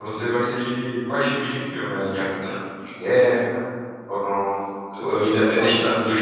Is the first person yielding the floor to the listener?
No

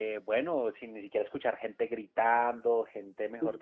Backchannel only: Yes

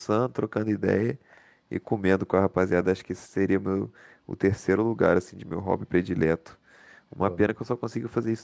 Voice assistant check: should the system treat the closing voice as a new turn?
No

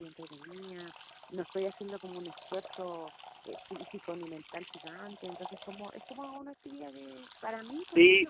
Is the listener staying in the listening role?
No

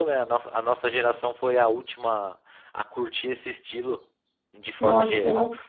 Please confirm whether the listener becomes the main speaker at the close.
Yes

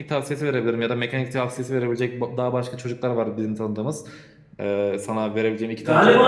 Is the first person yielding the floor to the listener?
Yes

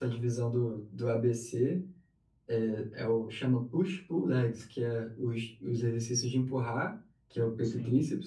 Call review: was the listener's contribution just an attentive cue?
Yes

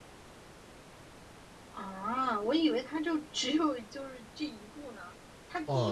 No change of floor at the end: No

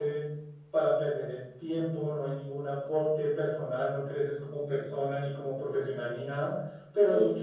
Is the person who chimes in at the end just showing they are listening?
Yes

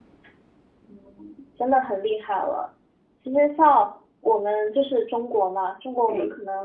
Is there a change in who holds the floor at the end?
No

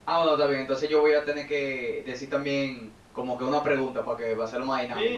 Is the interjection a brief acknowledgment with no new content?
No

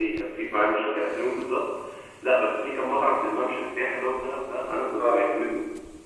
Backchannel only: Yes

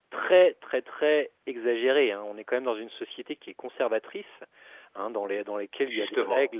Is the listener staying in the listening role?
Yes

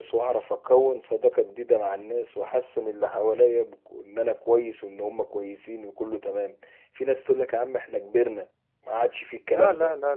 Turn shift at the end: Yes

